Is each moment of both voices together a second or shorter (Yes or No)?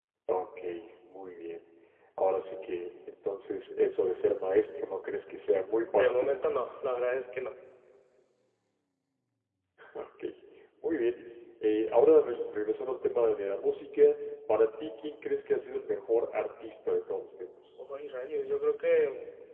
Yes